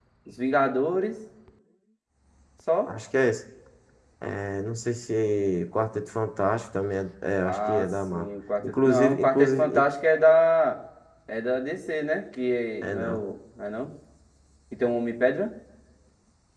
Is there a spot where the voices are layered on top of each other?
Yes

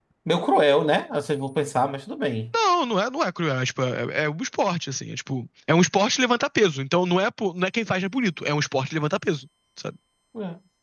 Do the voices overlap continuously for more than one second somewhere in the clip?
No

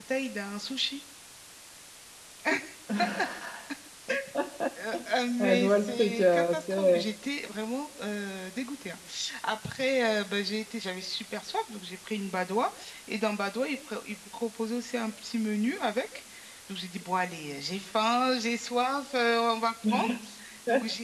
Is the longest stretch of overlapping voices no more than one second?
No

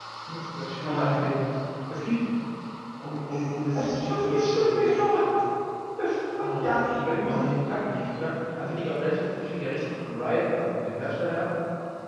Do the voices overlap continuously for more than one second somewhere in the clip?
Yes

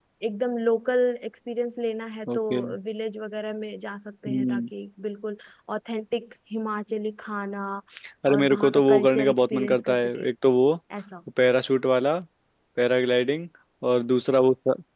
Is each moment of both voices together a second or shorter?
No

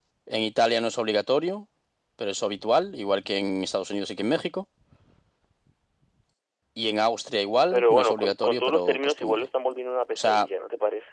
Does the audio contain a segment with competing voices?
Yes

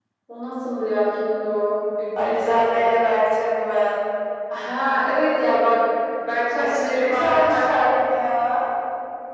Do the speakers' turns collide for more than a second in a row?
Yes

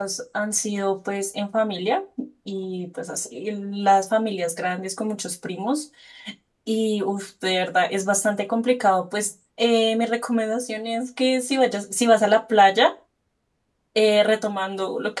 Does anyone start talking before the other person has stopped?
No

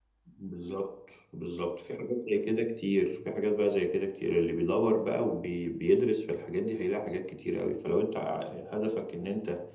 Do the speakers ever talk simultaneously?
No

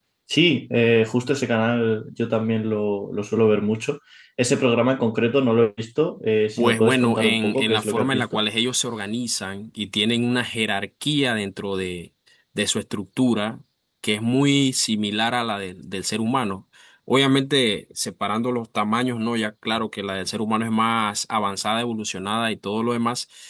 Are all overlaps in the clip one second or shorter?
No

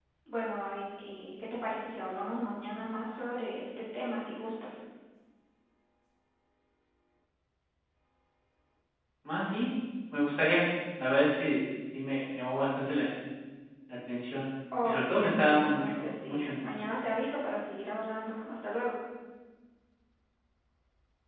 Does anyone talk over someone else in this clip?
Yes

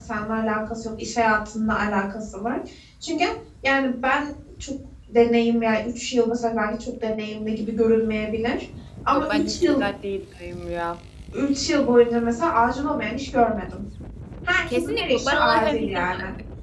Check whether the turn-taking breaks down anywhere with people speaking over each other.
Yes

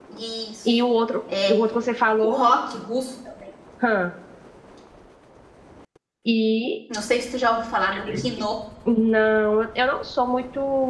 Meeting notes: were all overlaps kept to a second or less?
Yes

